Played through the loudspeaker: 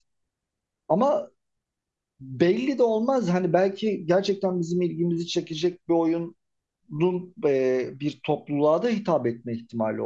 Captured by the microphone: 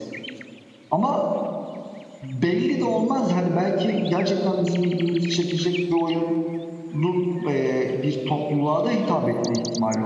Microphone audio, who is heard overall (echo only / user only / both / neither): echo only